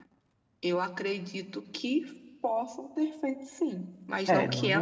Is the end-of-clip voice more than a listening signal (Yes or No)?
Yes